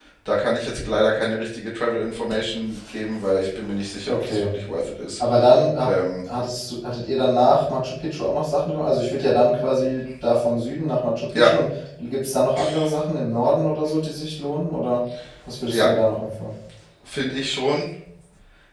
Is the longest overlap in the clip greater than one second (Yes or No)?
No